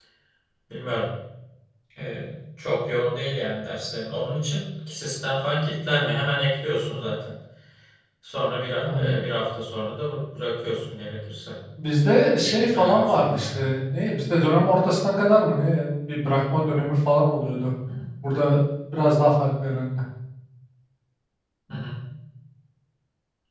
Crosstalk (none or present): present